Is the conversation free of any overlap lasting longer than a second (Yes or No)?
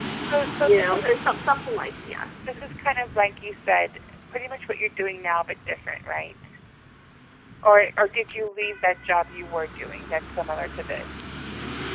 Yes